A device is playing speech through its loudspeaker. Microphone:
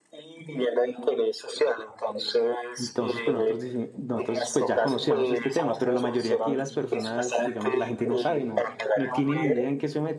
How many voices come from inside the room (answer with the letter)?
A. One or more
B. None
A